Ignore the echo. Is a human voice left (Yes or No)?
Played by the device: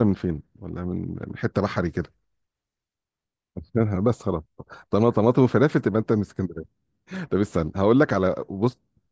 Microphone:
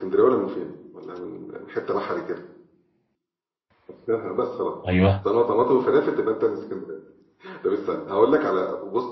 Yes